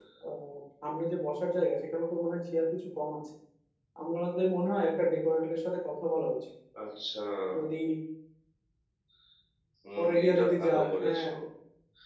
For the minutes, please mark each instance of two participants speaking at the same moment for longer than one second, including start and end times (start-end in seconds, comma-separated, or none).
10.0-11.2